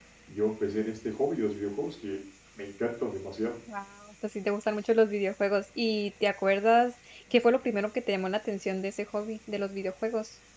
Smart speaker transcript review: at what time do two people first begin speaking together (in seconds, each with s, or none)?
none